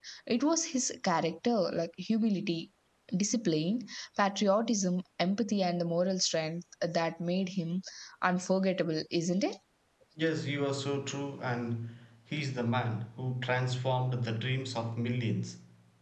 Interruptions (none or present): none